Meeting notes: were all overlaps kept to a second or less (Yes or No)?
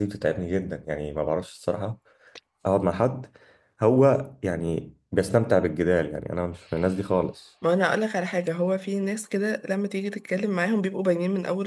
Yes